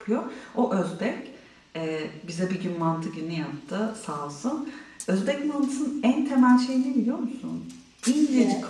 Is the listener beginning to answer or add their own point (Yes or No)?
No